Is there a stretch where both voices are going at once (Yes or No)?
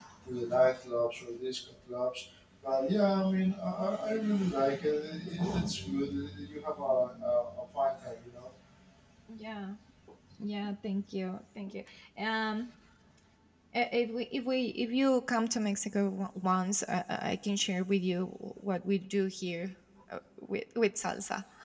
No